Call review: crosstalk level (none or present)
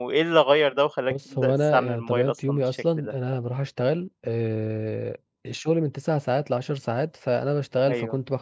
present